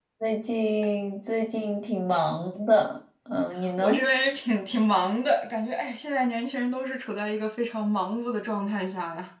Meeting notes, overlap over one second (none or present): none